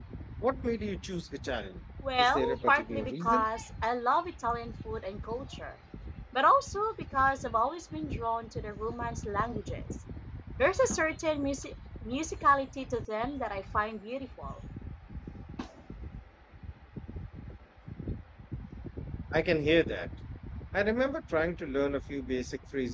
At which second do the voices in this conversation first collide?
2.0 s

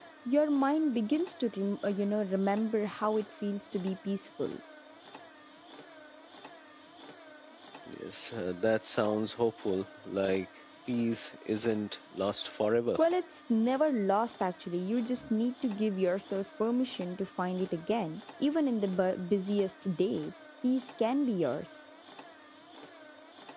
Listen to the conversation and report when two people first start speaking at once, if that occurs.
none

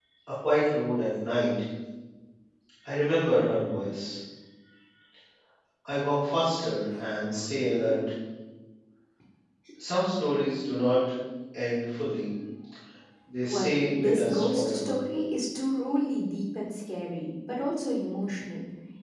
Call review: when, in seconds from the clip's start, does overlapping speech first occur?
13.4 s

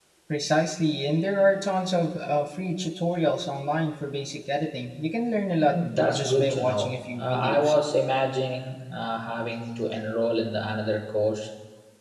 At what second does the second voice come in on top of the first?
5.7 s

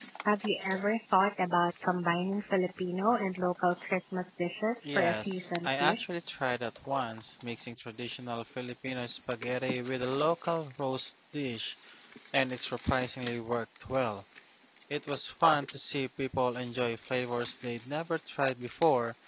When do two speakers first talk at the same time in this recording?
4.8 s

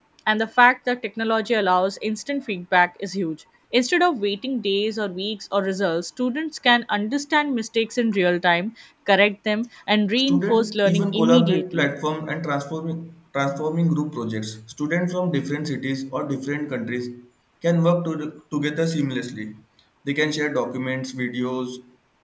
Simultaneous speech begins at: 10.3 s

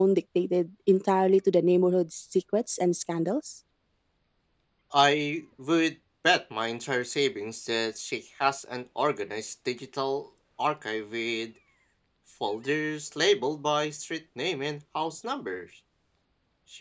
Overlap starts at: none

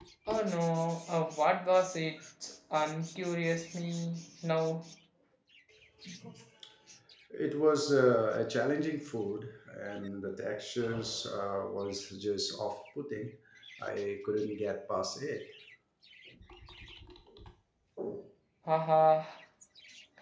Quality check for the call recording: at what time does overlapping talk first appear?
none

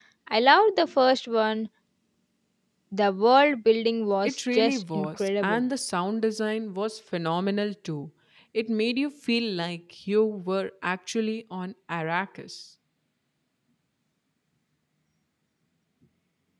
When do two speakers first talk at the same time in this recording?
4.2 s

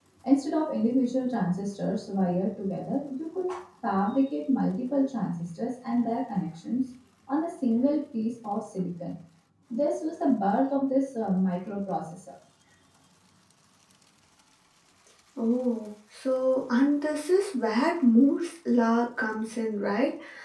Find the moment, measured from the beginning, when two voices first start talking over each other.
none

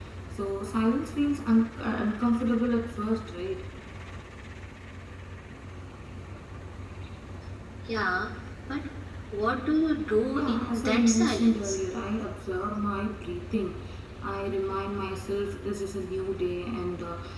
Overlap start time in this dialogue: 10.3 s

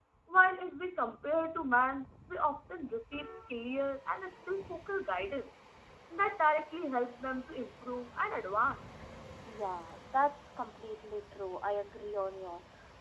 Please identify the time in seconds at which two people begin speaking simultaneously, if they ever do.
none

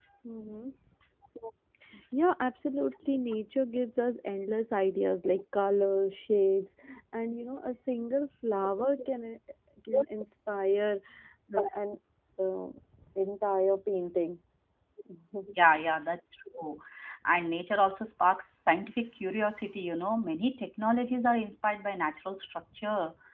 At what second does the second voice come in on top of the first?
none

